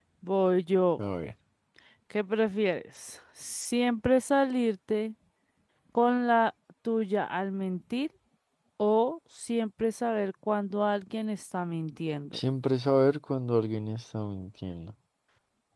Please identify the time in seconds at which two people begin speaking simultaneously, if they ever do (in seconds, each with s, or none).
none